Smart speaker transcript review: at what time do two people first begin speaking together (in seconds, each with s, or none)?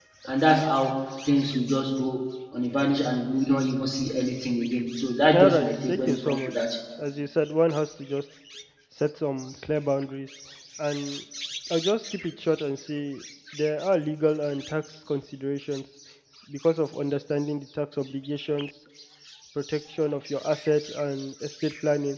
5.3 s